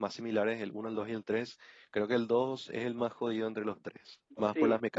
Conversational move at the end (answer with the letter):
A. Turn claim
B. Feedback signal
A